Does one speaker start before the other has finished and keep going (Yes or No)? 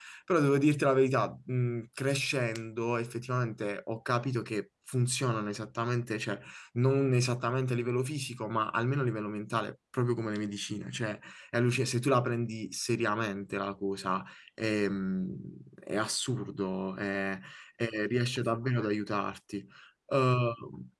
No